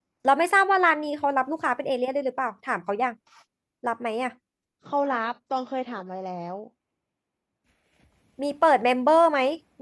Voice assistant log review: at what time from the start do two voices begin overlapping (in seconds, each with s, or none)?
none